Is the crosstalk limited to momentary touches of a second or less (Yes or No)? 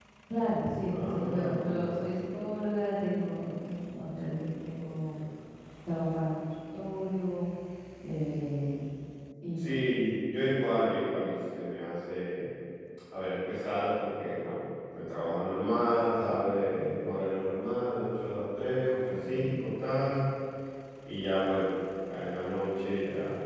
No